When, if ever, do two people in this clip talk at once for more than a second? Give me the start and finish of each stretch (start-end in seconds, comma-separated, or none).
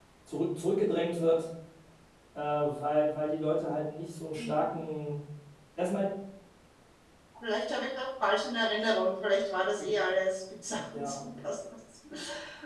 none